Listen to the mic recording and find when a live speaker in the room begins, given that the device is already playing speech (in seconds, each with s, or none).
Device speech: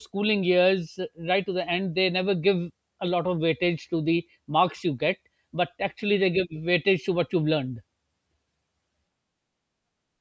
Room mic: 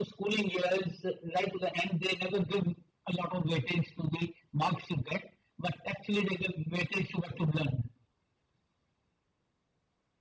none